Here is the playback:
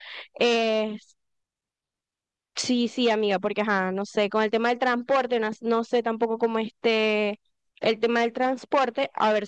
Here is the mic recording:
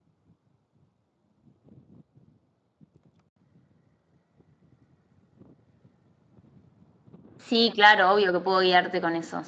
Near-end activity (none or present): present